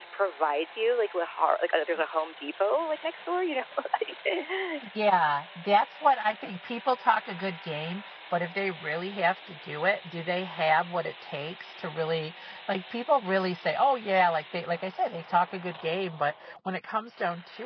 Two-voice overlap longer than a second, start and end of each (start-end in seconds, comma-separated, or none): none